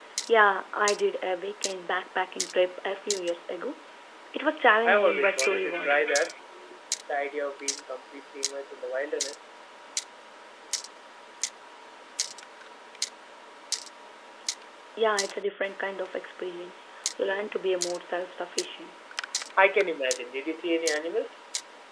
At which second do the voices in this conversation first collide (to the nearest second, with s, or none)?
5 s